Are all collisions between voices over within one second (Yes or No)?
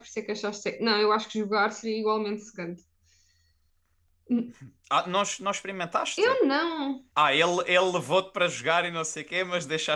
Yes